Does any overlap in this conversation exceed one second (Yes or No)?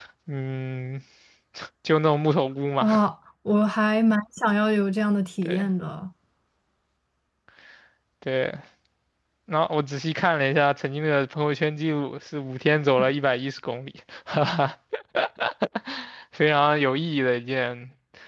No